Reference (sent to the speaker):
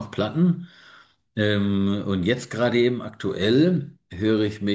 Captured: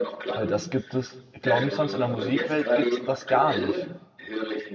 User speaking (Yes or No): Yes